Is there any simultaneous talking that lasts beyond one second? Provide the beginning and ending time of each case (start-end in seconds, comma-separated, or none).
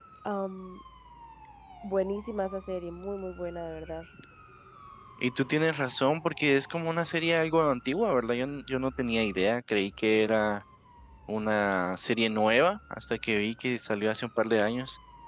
none